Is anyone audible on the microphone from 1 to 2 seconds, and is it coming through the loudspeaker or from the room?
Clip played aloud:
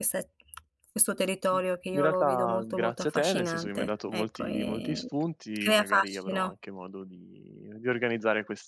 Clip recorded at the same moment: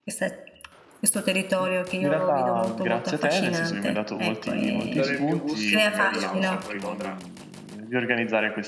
echo only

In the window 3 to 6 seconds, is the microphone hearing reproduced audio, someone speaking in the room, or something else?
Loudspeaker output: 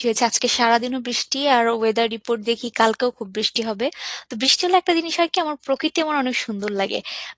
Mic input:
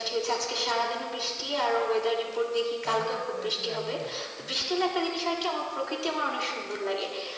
both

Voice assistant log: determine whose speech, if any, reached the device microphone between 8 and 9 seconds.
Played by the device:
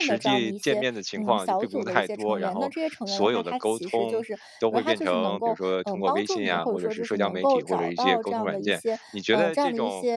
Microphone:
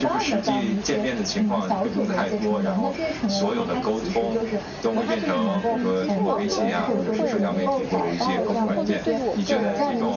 both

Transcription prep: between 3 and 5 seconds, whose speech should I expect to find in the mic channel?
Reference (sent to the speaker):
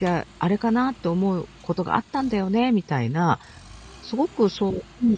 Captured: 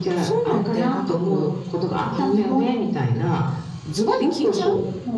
both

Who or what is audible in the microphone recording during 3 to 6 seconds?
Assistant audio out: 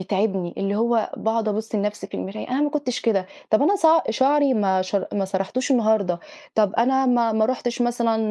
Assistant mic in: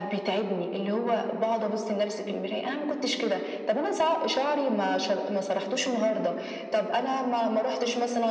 echo only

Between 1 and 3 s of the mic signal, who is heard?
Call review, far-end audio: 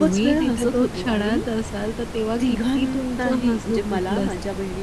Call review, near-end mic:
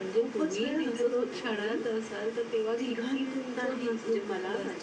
echo only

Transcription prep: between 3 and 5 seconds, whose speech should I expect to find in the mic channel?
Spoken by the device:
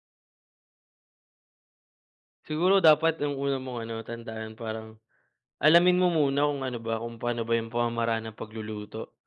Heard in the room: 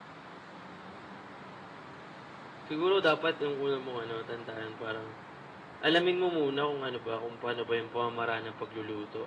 echo only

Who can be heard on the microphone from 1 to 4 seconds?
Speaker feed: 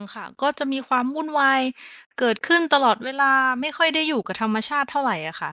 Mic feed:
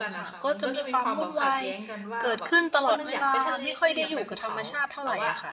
both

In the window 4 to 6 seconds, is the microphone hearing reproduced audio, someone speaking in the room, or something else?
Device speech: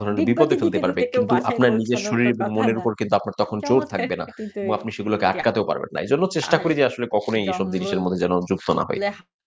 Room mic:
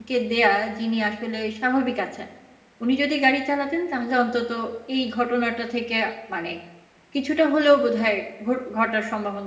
user only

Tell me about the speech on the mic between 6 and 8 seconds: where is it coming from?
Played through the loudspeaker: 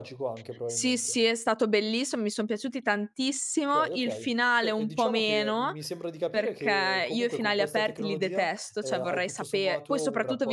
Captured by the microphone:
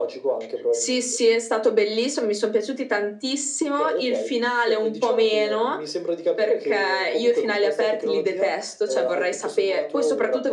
echo only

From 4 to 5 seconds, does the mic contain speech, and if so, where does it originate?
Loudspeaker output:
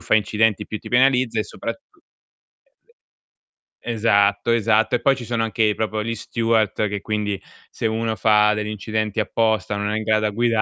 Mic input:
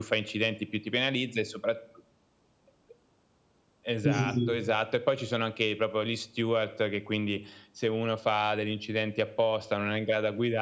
both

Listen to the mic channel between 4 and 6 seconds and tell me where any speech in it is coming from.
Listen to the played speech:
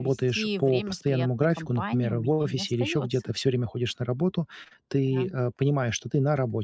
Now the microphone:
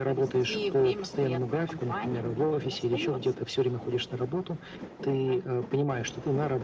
echo only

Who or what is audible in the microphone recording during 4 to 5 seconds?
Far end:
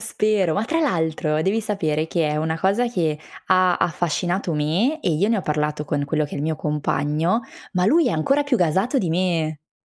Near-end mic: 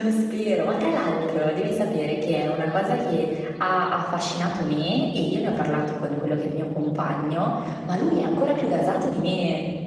echo only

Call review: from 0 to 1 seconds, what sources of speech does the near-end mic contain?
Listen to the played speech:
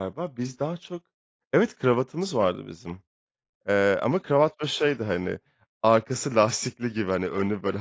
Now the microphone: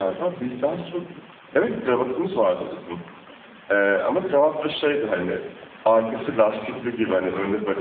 echo only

